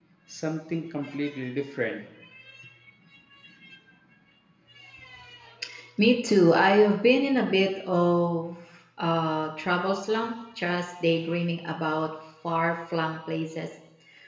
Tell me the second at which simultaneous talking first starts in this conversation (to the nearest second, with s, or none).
none